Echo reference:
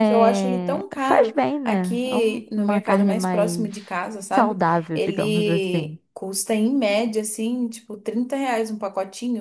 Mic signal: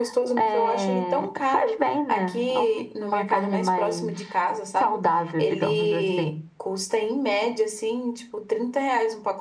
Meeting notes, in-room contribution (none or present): none